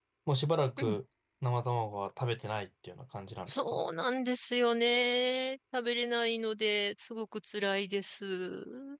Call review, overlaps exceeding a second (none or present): none